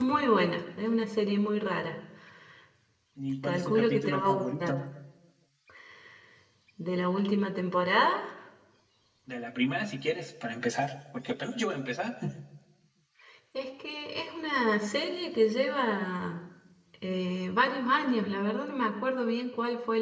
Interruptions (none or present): present